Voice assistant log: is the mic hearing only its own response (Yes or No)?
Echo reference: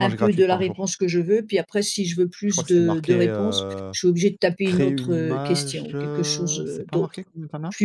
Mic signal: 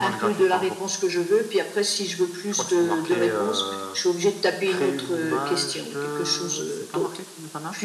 Yes